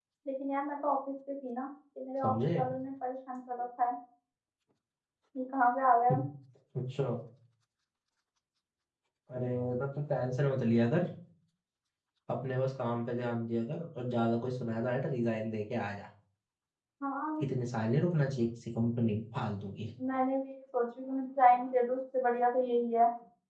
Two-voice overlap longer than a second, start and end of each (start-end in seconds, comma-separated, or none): none